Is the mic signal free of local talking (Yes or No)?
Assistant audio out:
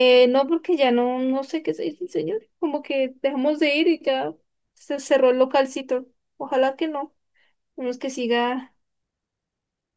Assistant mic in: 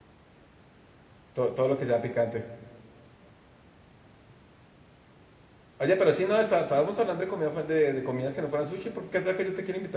No